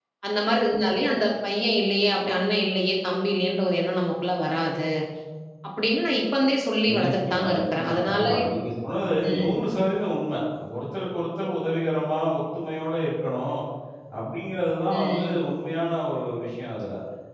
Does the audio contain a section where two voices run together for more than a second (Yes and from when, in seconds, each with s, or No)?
Yes, from 7.0 s